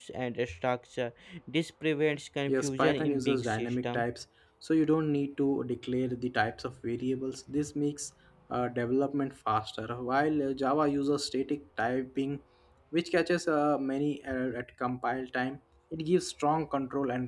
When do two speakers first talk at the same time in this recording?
2 s

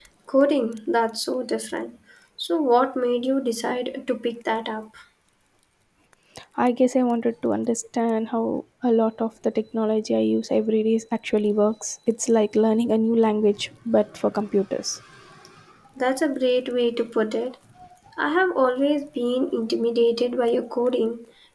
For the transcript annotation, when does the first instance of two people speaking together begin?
none

